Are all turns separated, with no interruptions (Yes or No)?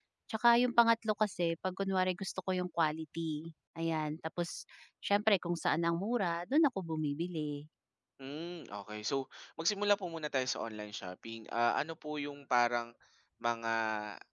Yes